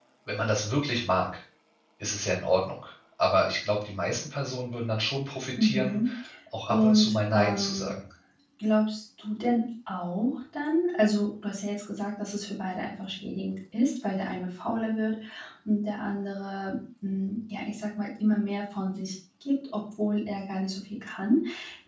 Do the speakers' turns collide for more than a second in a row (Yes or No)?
Yes